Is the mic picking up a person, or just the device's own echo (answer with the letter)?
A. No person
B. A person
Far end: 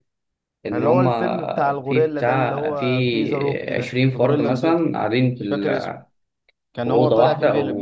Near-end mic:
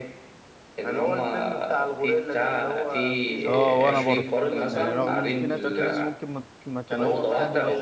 B